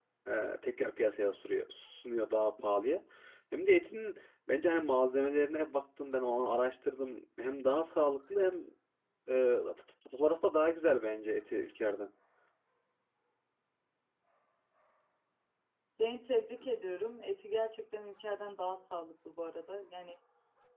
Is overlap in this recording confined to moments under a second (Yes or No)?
Yes